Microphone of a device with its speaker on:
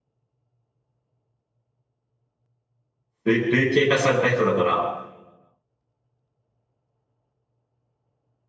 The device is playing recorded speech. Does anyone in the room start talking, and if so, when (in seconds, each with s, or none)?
3.2 s